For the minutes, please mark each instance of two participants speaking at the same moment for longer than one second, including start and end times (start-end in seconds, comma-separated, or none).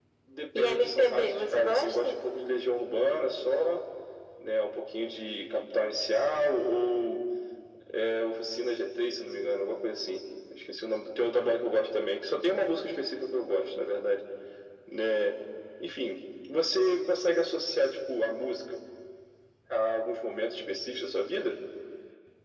0.6-2.1